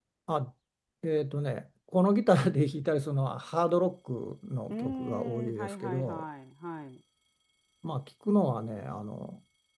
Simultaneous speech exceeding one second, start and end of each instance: 4.7-6.2

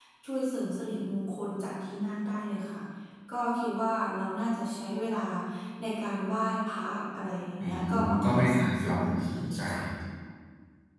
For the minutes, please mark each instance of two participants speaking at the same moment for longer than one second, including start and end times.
7.6-9.6

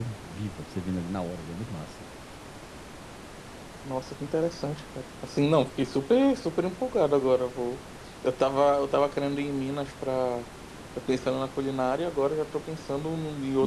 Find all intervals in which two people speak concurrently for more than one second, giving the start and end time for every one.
none

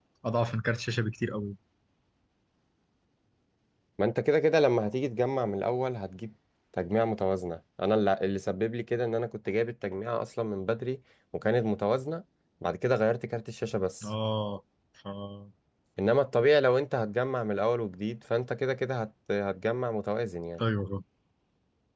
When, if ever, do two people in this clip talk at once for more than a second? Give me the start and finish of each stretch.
none

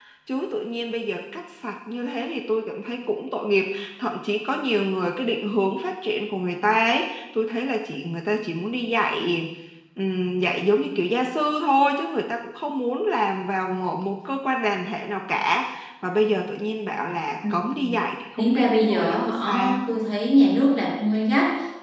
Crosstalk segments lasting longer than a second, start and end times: 18.4-19.9

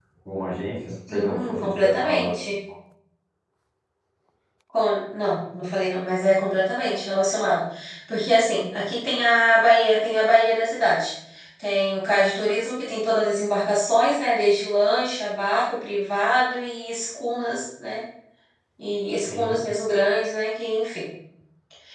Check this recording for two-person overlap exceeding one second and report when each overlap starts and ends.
1.1-2.4

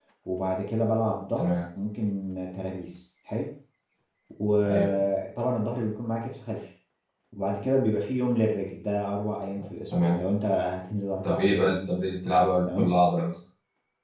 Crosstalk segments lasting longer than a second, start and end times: none

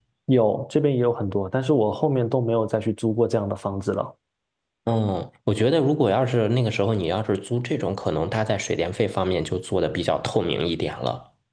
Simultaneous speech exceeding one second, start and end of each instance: none

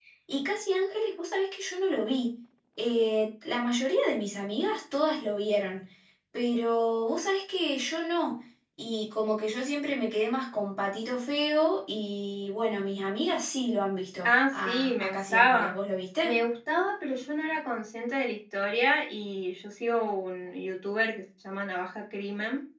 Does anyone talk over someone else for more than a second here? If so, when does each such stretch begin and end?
14.2-15.8

